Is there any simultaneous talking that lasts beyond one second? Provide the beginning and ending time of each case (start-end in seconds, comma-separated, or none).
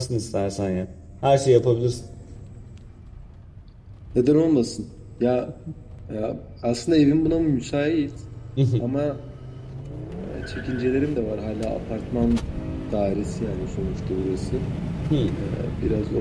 none